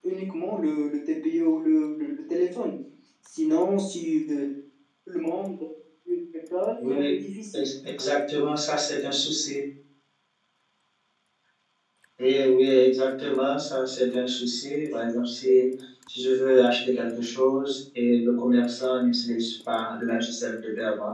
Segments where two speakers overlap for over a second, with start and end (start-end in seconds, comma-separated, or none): none